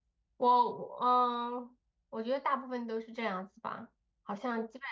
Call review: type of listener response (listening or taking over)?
listening